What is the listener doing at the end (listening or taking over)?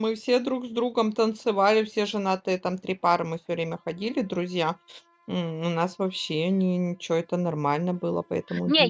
taking over